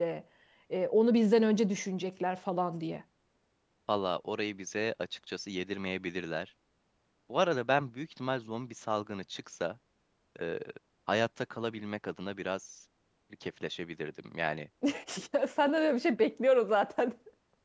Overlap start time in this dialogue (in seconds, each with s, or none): none